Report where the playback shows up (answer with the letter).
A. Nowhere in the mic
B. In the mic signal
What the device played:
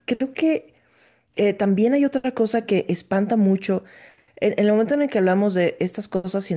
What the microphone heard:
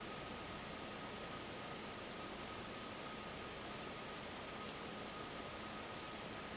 A